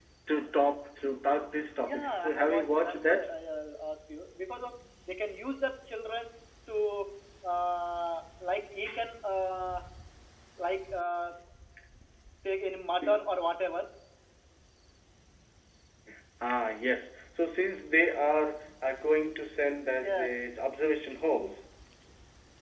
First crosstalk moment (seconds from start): 1.9 s

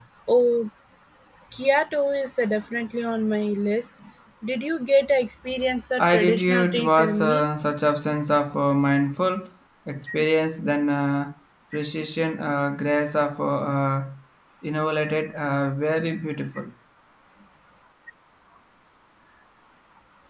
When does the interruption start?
6.0 s

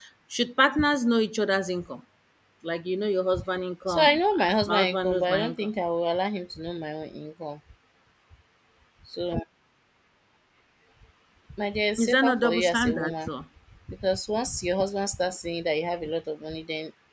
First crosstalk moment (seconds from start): 3.9 s

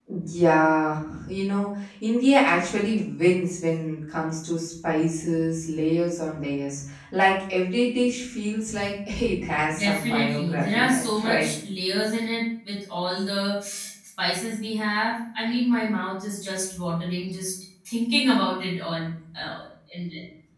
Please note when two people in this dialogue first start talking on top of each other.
9.7 s

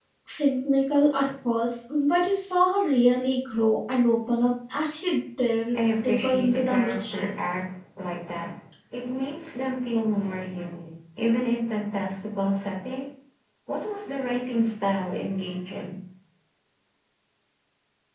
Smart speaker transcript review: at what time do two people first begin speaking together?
5.7 s

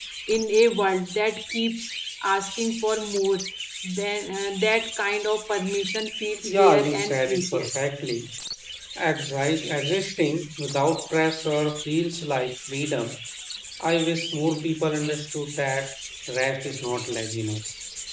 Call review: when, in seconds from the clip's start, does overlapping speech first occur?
6.4 s

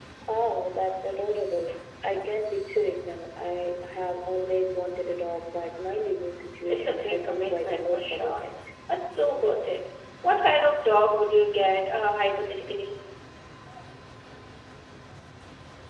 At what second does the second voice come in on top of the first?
6.7 s

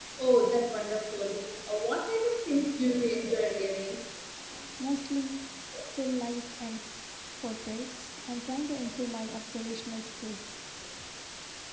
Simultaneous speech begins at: none

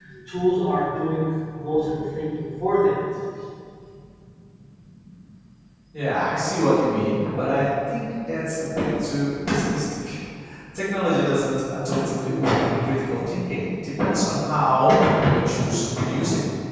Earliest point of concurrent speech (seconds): none

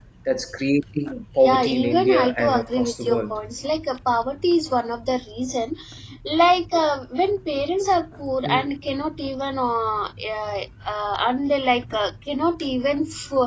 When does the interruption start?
1.5 s

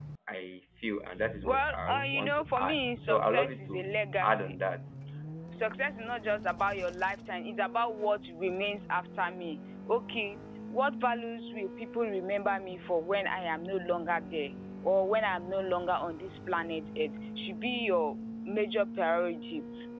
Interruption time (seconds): 1.4 s

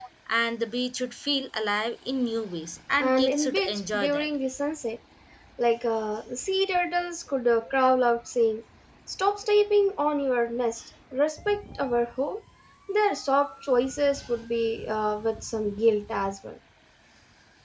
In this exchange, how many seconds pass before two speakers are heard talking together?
3.0 s

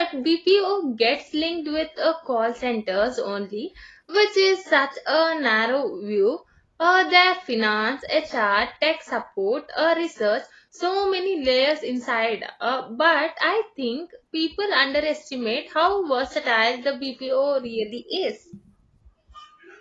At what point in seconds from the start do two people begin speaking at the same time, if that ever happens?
none

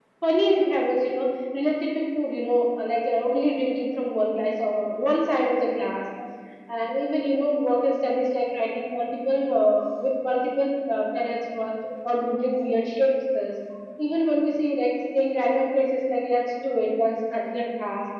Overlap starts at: none

